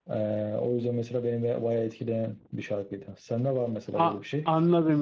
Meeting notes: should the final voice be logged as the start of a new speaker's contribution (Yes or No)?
Yes